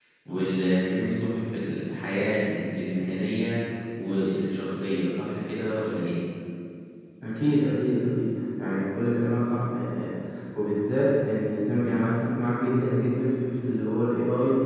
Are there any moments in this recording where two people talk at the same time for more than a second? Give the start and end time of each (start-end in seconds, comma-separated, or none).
none